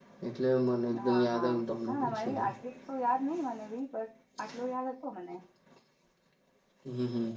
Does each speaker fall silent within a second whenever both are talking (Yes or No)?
No